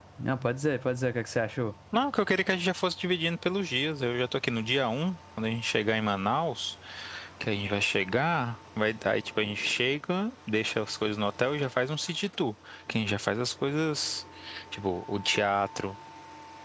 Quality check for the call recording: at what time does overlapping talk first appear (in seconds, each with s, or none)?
none